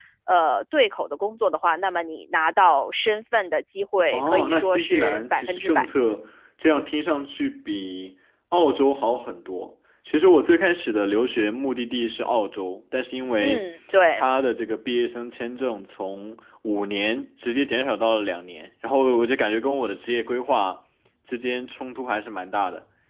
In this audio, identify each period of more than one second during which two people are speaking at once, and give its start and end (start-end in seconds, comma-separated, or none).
4.1-5.8